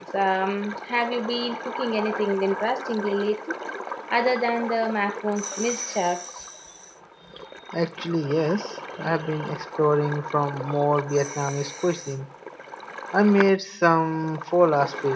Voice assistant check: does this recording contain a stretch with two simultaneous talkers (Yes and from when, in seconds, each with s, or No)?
No